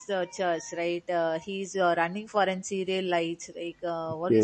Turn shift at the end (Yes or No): No